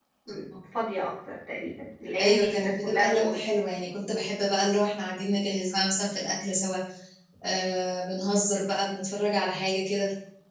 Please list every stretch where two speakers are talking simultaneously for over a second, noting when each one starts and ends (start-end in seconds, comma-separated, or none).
2.2-3.4